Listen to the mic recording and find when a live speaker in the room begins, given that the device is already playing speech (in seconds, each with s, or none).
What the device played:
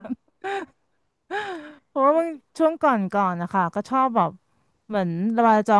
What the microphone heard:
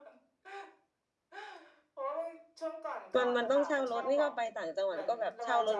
3.1 s